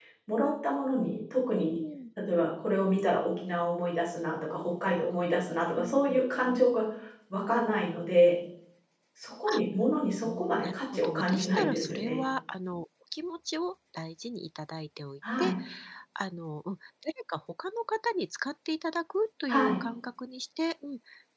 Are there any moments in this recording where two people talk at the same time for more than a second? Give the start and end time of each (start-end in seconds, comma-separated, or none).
10.2-12.2